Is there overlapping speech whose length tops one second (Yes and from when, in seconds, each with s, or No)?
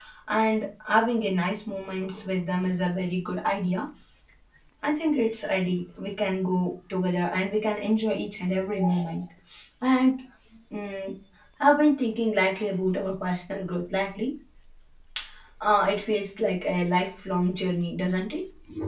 No